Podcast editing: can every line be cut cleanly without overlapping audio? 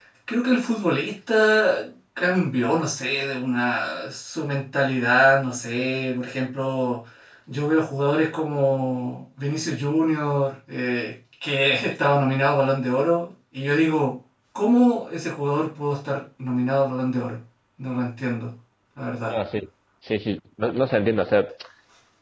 Yes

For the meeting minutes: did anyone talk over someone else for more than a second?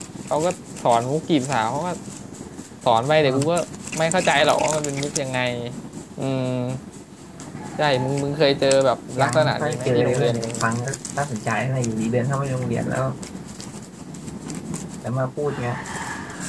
Yes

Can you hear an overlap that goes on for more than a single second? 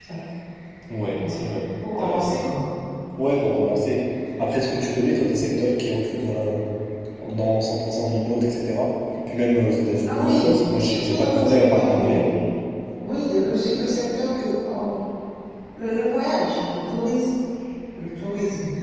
Yes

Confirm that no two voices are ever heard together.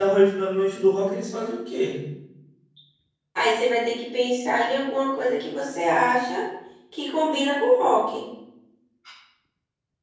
Yes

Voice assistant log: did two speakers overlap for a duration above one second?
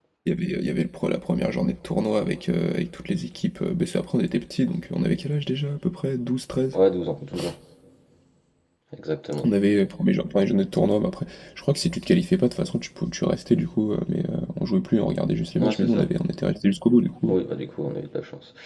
No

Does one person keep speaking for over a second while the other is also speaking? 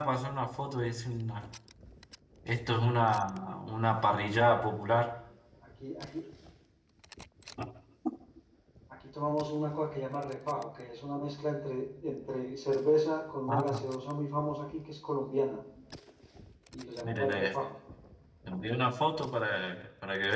No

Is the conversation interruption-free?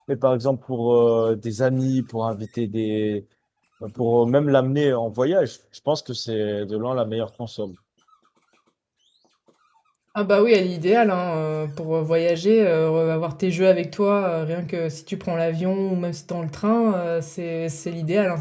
Yes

